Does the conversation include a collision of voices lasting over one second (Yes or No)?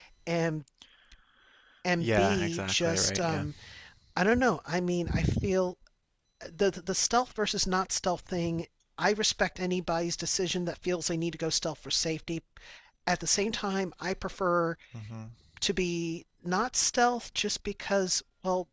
Yes